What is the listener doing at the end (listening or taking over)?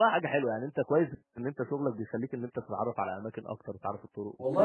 taking over